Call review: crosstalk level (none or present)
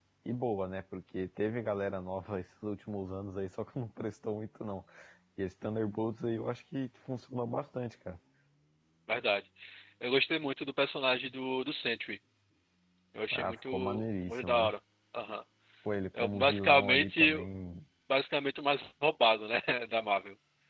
present